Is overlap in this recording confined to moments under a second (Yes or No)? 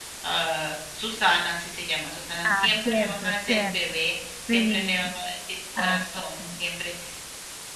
No